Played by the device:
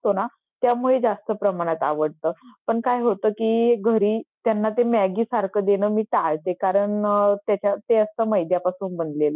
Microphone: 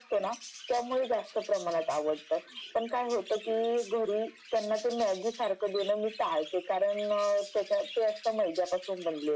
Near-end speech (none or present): none